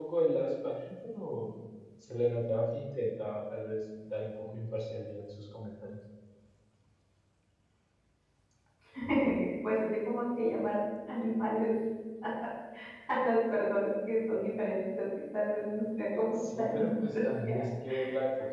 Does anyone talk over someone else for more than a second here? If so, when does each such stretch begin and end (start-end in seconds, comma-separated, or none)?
16.2-17.6